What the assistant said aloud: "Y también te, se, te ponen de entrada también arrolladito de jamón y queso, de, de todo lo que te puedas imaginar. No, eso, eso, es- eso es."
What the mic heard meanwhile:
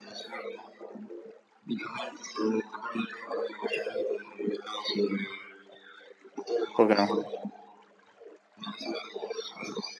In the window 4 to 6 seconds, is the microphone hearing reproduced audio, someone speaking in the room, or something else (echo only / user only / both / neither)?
echo only